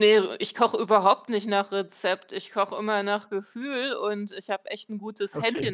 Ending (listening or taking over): listening